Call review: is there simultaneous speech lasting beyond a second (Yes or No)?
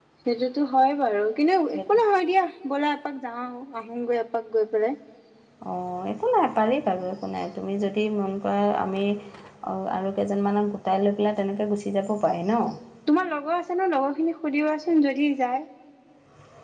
No